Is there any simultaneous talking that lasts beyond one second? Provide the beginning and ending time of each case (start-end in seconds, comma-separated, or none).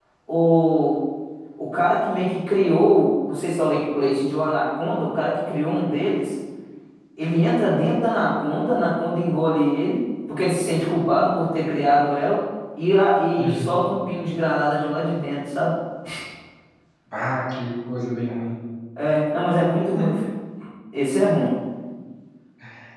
none